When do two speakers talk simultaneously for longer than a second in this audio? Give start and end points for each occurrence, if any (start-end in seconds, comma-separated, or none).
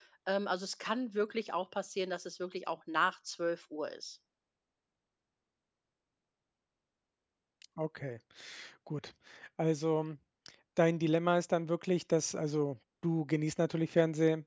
none